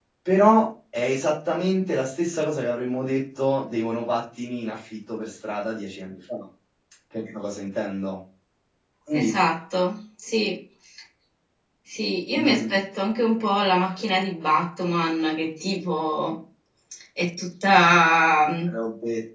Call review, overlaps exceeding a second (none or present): none